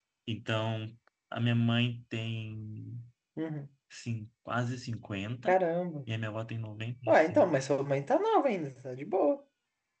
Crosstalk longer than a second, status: none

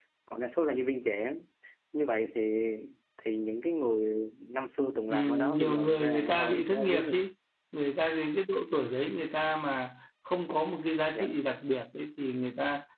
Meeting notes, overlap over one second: present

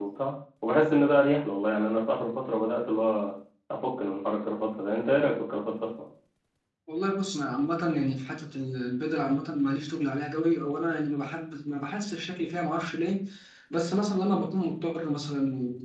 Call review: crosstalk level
none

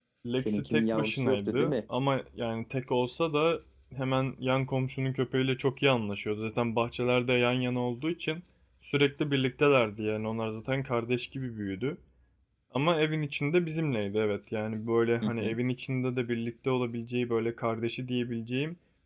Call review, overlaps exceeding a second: present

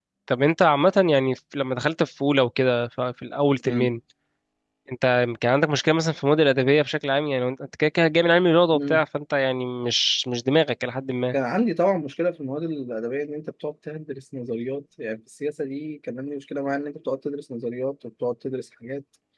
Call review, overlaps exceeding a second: none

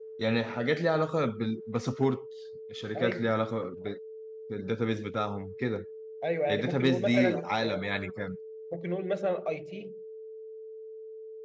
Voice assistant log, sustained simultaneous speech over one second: present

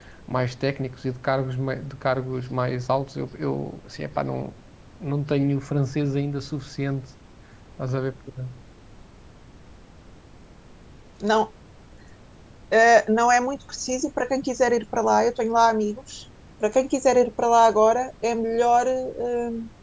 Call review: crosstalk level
none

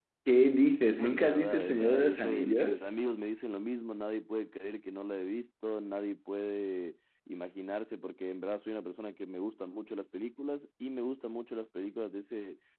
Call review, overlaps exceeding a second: present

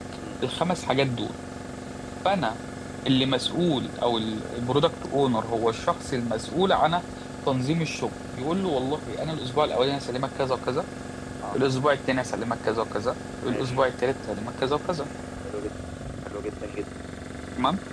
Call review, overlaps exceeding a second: none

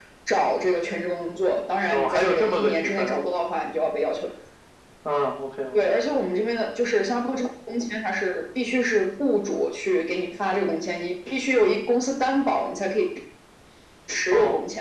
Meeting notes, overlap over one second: present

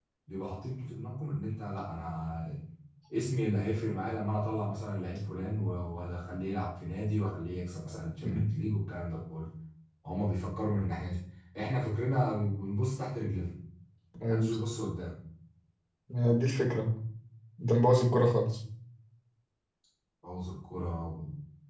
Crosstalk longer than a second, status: none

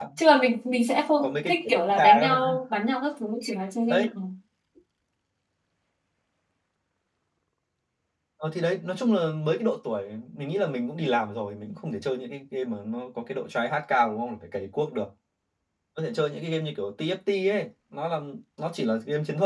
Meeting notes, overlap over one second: present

